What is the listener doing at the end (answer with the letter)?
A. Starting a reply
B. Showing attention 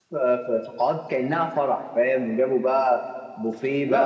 B